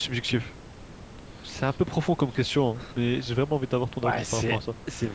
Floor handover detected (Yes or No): Yes